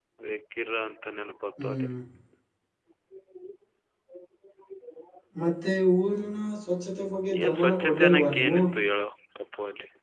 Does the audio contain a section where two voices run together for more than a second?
Yes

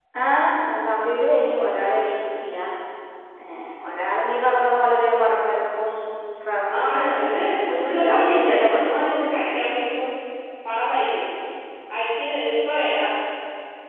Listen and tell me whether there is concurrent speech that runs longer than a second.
Yes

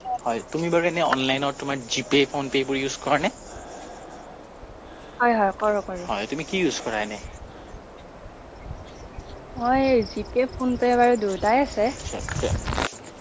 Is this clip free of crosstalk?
Yes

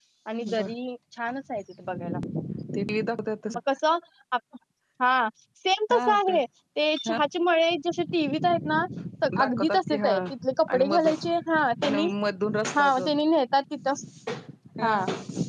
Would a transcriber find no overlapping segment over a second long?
No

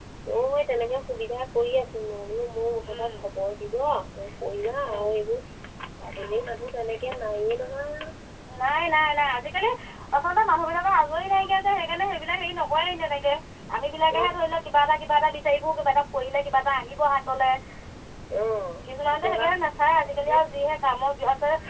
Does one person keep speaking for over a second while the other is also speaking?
Yes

